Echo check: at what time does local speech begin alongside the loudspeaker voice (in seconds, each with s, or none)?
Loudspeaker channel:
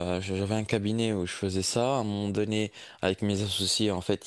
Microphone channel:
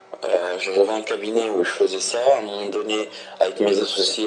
none